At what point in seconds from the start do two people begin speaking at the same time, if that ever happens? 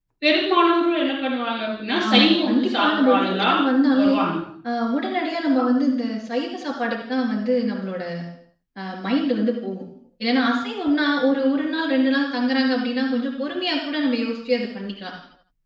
2.1 s

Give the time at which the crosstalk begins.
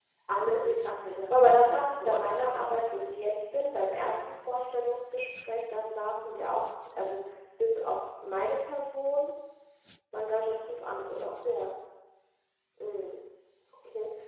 1.3 s

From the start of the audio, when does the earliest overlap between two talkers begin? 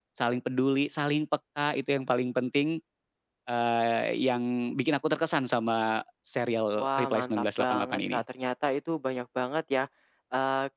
6.8 s

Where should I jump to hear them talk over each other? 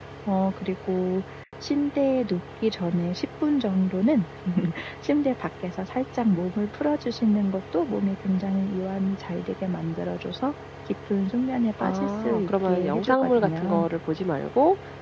11.8 s

